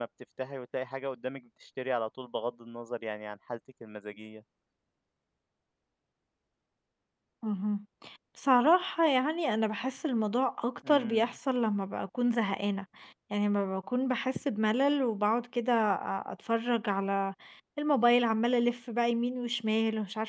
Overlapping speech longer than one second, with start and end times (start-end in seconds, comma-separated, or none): none